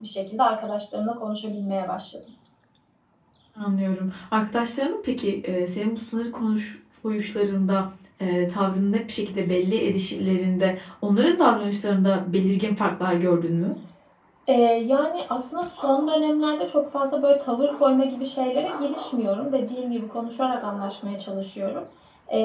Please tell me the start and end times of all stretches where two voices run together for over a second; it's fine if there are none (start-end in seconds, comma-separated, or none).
none